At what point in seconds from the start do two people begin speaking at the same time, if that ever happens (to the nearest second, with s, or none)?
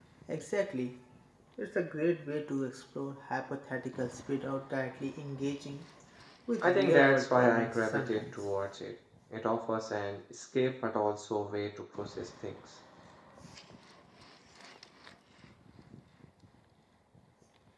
7 s